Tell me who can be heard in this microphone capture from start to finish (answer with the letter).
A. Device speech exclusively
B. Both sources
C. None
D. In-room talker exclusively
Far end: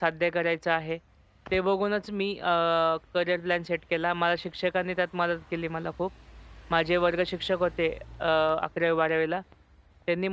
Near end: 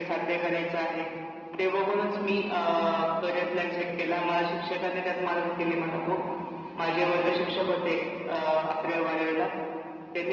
A